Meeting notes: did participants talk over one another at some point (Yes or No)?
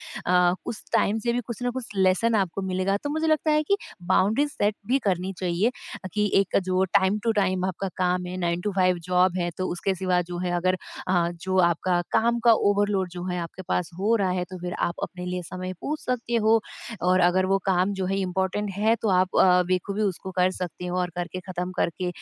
No